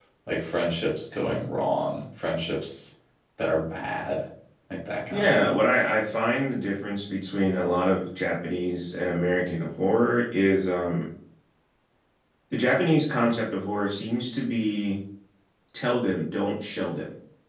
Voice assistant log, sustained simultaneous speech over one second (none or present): none